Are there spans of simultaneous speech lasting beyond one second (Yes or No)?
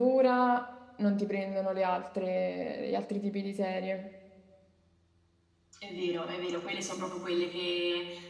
No